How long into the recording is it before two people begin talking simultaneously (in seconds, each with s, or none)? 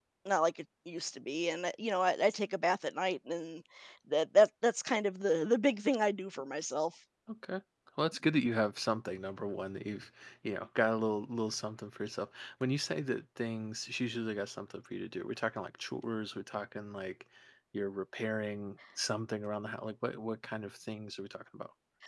none